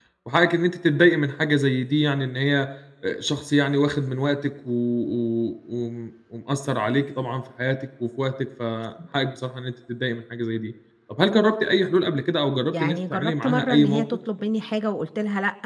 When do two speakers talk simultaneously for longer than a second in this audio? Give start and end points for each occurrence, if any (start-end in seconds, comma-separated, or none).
12.8-14.0